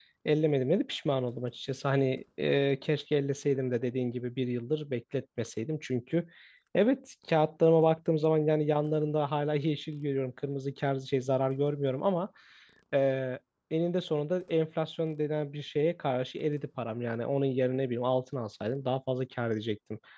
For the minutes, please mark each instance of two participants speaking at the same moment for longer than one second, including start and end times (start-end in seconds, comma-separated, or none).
none